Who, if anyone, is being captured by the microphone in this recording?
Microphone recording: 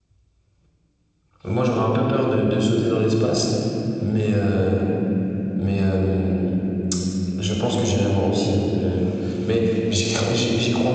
echo only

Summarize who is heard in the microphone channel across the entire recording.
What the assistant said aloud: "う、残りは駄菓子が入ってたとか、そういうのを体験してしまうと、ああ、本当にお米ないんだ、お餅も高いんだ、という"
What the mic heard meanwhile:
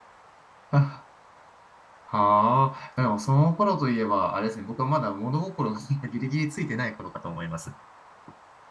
user only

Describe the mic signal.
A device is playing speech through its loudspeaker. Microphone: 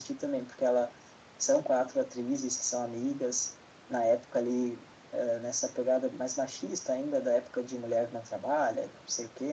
echo only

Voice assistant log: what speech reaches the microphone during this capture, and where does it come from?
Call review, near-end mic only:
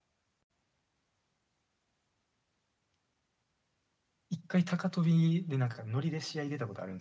user only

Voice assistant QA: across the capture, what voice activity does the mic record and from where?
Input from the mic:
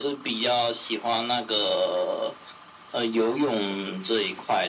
echo only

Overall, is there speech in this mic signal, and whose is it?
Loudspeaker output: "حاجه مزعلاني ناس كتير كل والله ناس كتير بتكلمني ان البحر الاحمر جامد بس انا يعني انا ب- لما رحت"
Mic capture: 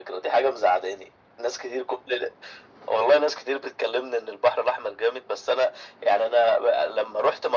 echo only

